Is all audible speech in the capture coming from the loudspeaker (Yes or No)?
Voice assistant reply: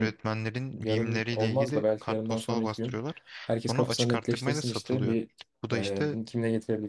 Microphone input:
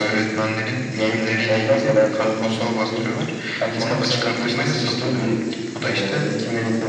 Yes